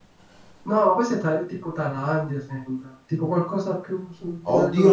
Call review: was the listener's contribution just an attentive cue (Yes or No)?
No